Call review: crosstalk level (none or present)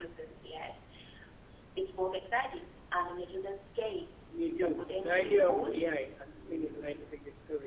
present